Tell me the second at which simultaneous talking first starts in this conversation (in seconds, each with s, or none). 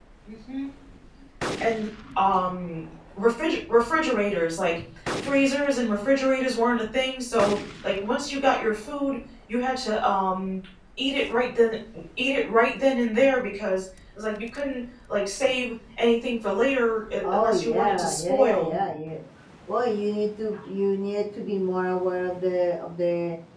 17.2 s